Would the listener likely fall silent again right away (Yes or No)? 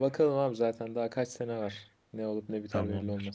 No